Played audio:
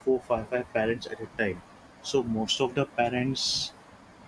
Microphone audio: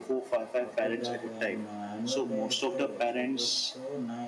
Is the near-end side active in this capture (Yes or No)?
Yes